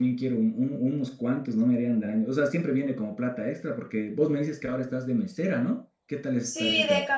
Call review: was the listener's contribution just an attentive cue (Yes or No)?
No